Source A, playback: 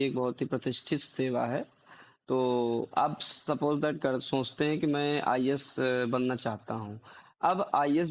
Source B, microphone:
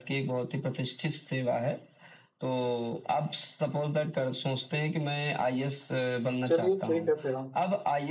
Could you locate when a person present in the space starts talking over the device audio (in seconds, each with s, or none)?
6.5 s